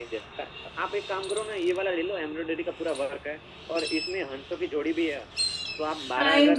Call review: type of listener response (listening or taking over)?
listening